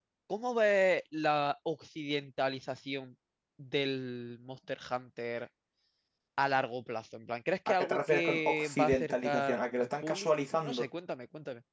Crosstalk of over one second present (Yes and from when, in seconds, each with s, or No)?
Yes, from 7.7 s